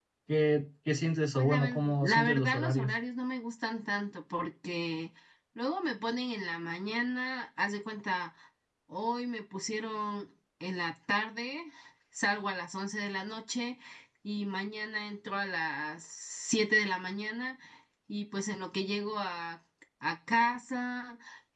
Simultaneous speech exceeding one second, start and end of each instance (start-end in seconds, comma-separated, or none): 1.3-2.9